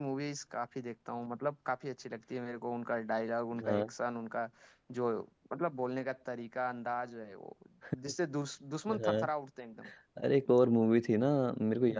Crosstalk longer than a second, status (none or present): none